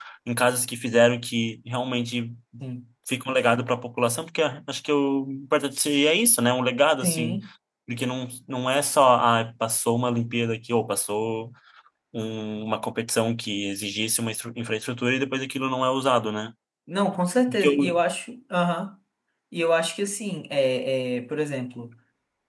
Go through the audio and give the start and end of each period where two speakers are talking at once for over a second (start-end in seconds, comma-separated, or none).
none